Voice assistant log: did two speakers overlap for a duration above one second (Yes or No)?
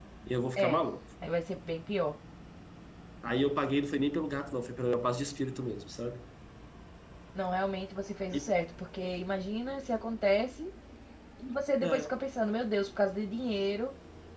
No